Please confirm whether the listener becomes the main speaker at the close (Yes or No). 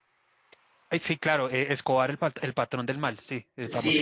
Yes